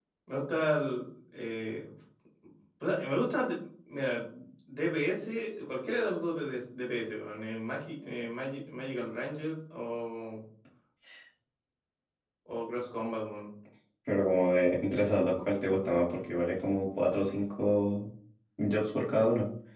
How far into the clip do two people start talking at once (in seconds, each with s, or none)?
none